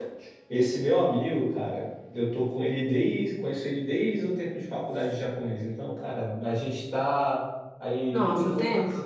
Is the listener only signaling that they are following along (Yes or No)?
Yes